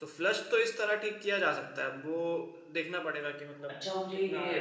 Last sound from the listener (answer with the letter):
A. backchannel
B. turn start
B